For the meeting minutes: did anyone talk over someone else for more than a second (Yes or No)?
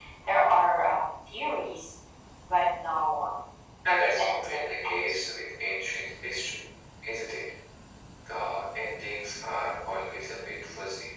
Yes